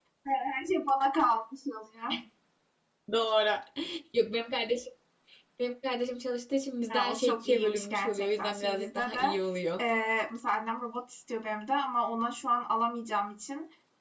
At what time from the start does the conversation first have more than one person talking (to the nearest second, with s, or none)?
7 s